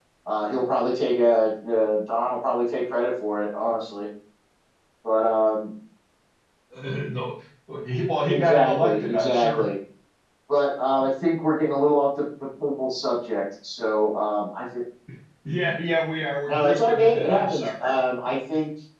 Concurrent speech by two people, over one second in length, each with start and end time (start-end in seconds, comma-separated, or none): 8.3-9.7, 16.5-17.9